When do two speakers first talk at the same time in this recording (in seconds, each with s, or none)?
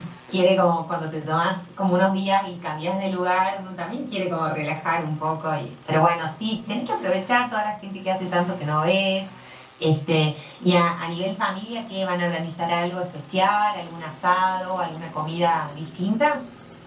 none